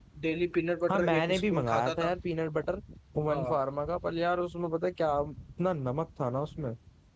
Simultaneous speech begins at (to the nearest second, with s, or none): 1 s